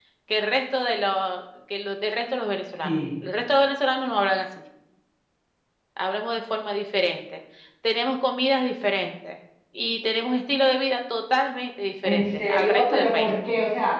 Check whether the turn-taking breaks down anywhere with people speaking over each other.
Yes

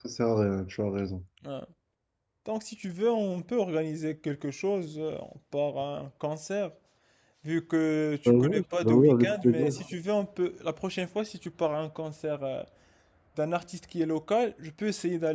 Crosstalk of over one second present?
Yes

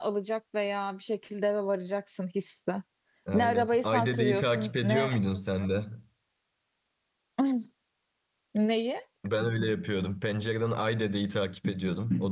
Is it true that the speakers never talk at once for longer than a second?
No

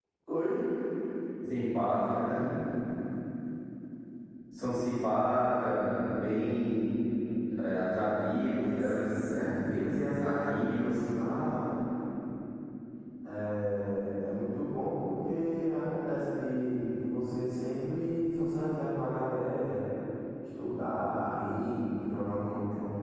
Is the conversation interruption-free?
No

